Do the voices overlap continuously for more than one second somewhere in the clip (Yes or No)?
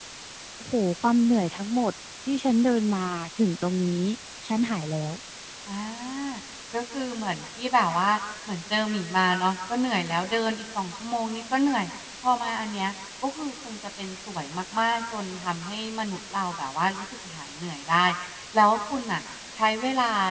No